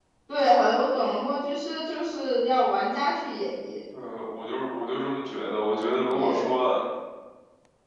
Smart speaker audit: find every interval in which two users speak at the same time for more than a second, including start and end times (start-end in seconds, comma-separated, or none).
none